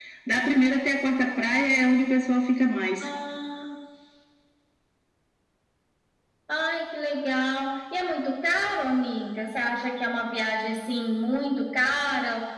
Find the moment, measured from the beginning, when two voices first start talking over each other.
none

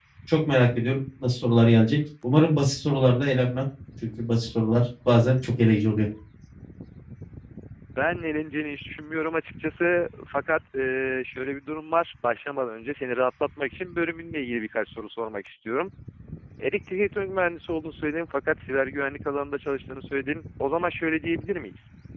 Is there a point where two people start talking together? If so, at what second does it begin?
none

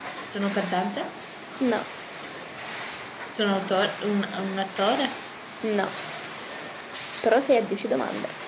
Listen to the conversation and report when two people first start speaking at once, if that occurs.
none

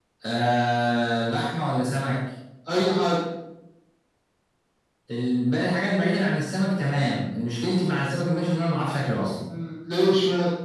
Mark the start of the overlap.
none

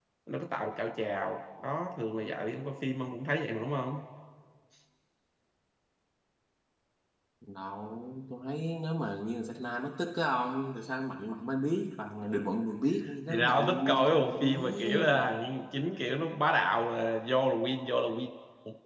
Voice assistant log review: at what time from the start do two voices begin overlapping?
13.3 s

